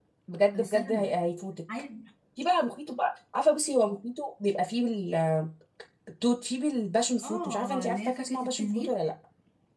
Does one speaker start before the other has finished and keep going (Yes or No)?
Yes